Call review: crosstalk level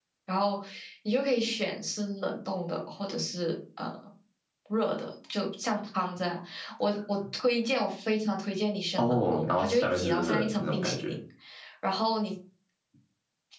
present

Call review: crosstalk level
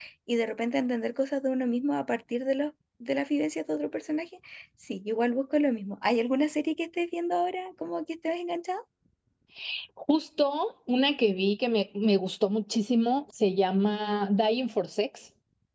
none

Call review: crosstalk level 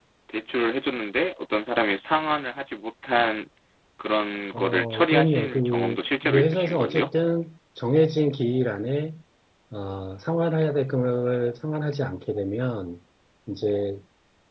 present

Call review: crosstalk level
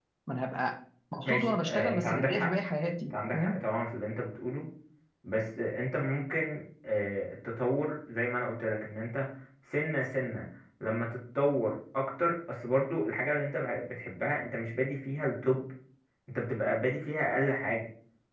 present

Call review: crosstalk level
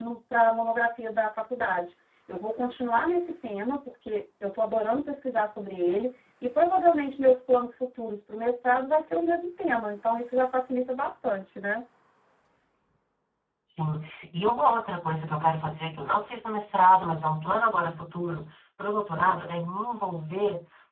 none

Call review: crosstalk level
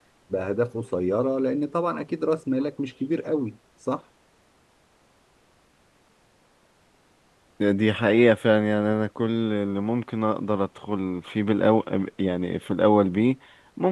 none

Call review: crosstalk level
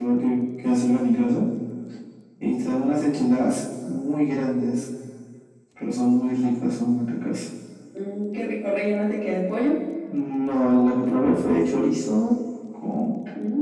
none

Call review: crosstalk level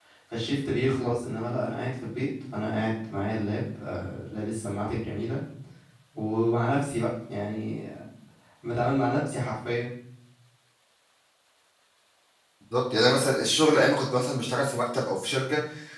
none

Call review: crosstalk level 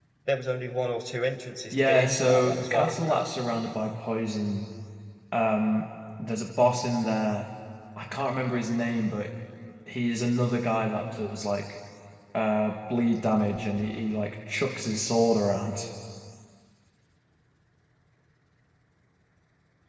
present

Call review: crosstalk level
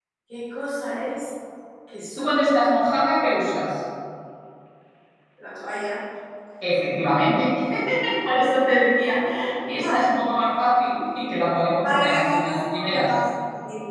present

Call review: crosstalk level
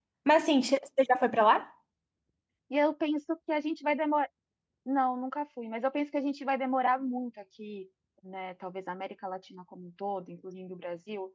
none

